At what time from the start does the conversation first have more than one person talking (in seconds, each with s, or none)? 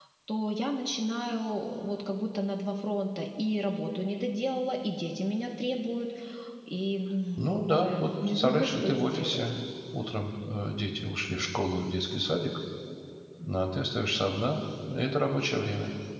7.4 s